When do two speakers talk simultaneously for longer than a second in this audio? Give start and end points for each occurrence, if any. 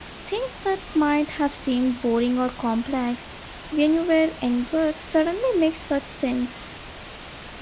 none

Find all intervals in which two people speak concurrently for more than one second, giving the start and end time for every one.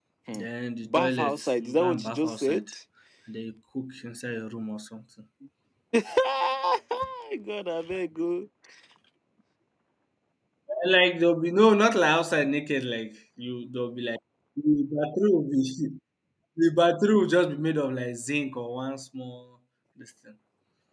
0.8-2.6

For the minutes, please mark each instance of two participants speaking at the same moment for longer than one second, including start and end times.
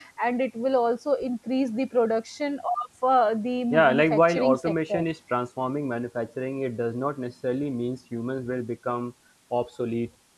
3.7-5.0

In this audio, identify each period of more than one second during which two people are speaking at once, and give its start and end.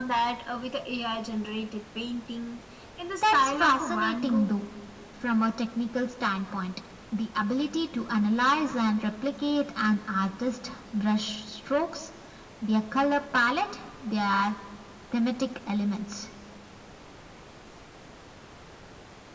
3.2-4.5

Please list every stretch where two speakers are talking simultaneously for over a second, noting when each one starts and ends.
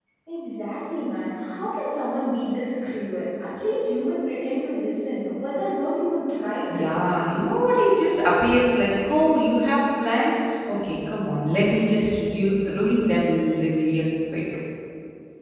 none

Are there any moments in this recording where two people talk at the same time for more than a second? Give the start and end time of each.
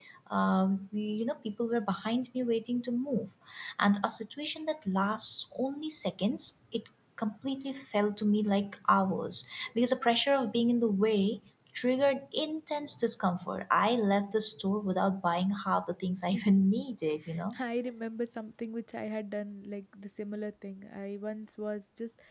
none

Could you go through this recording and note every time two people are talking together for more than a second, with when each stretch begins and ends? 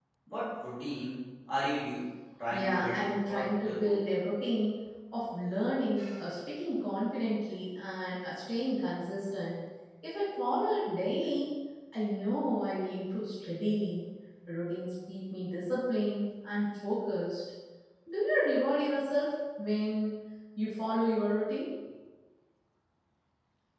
2.5-4.0

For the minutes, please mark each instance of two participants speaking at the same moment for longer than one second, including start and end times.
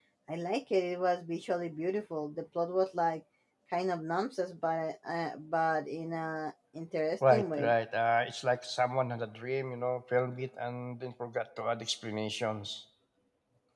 none

